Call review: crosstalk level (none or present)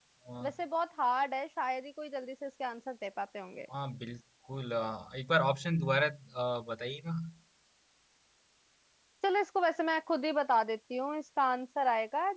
none